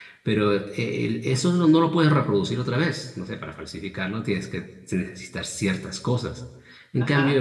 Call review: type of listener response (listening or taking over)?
listening